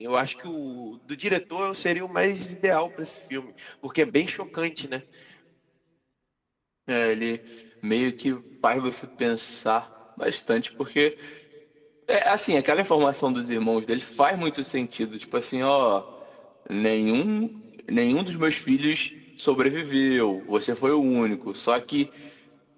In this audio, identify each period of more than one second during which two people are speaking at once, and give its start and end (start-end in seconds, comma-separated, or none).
none